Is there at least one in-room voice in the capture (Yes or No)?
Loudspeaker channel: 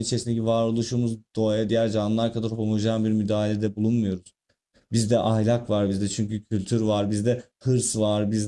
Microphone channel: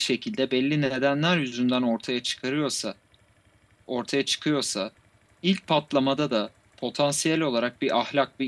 Yes